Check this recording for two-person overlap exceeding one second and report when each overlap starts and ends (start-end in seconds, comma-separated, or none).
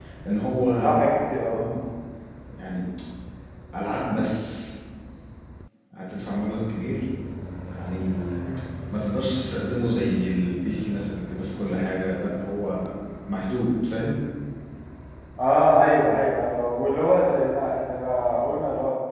none